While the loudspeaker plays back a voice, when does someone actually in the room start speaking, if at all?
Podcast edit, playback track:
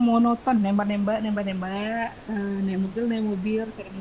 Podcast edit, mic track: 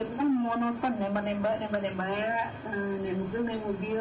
none

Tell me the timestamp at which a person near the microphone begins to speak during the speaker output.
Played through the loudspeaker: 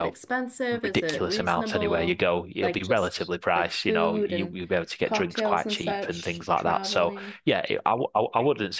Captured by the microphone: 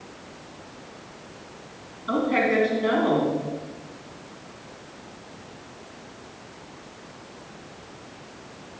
2.1 s

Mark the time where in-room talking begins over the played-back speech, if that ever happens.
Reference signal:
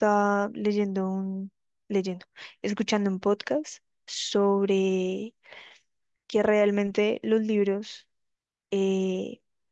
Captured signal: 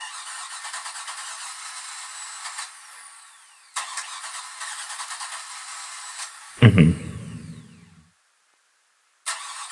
6.6 s

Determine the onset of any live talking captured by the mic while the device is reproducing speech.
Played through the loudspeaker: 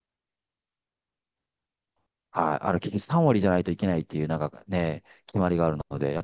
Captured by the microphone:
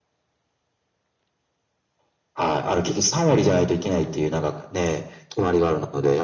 3.2 s

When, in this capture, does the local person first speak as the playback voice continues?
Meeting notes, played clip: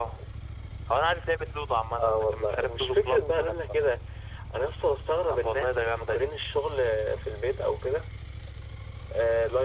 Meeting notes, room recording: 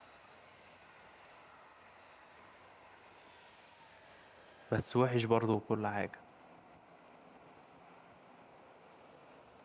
4.7 s

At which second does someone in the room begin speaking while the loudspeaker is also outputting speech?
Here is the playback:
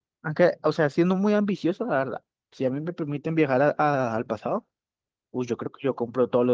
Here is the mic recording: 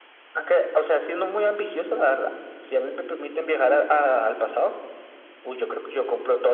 none

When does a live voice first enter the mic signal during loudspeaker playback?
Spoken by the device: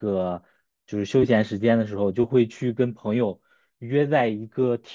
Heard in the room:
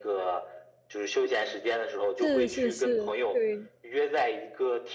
2.1 s

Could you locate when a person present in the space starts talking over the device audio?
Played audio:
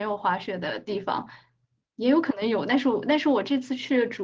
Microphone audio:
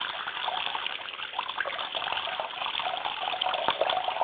none

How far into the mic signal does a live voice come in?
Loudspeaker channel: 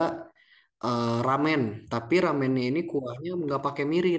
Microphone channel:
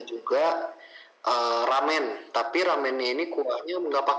none

